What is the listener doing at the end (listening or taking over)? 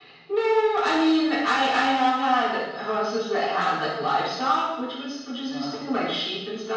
listening